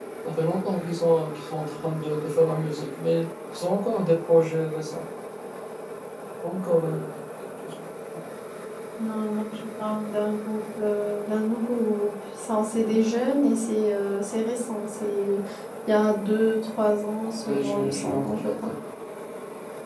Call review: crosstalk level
present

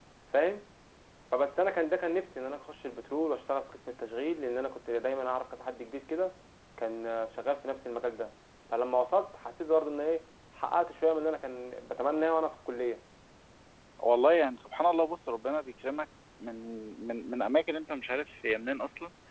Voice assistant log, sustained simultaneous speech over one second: none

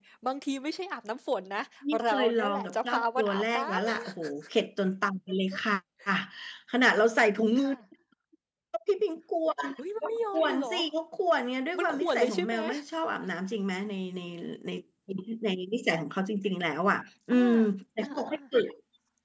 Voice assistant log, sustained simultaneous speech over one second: present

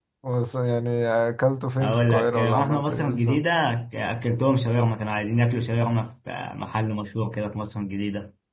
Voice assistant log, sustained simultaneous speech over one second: present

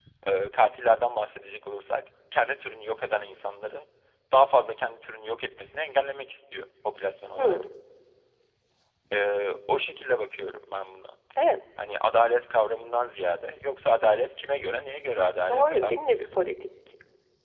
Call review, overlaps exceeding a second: none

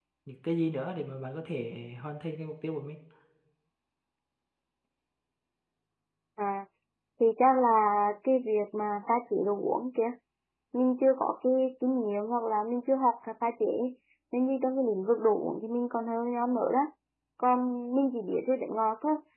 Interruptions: none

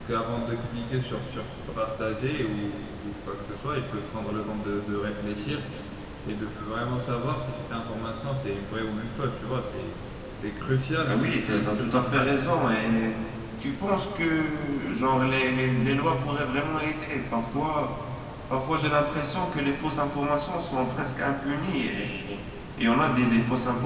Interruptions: present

